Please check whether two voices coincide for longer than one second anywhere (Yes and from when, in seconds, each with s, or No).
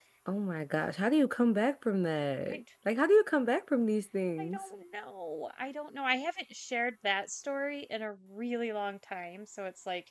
No